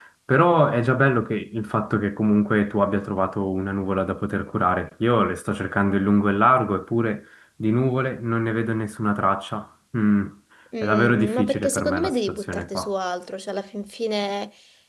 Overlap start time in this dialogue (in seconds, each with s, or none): 10.8 s